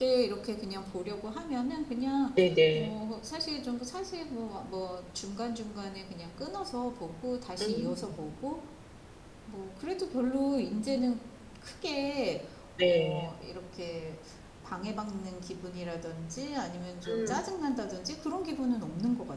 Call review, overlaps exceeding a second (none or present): none